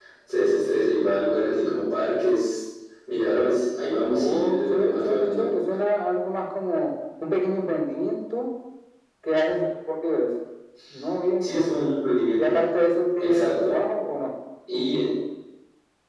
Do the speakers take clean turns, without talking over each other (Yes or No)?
No